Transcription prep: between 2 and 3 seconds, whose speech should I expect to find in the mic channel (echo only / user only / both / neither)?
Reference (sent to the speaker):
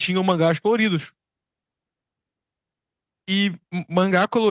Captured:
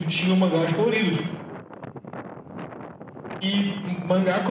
neither